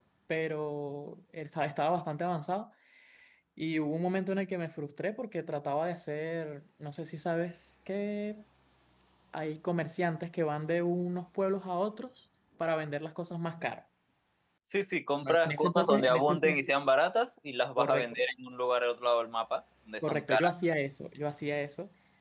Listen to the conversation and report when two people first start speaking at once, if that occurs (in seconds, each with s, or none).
15.2 s